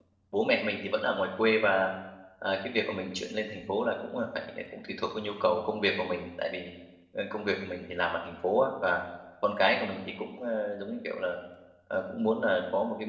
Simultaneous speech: No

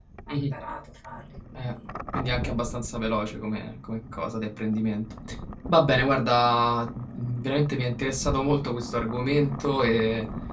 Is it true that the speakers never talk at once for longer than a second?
Yes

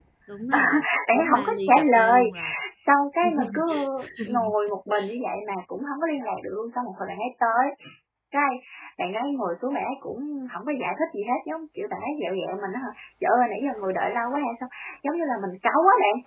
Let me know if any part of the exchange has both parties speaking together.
Yes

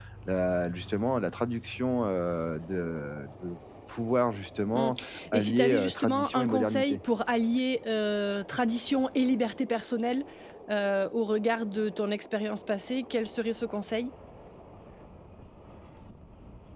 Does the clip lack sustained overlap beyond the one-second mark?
No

